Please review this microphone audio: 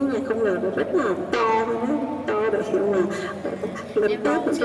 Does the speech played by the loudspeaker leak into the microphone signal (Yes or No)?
Yes